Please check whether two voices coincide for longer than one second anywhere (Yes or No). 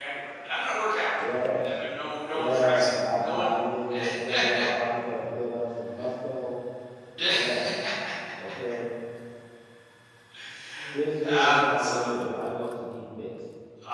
Yes